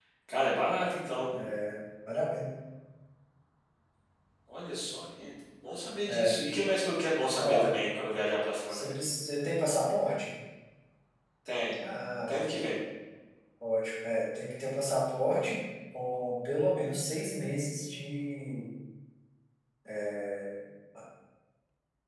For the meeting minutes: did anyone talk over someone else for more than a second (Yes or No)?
No